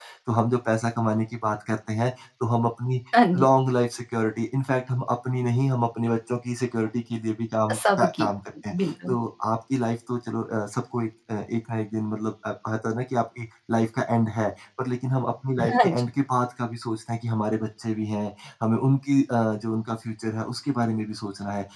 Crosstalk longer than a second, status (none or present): none